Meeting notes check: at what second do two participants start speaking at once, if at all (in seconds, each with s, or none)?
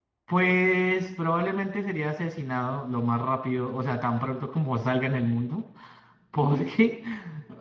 none